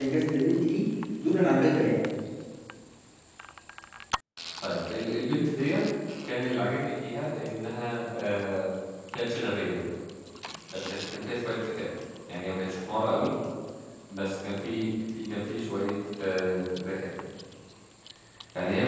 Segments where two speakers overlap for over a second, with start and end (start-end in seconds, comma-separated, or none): none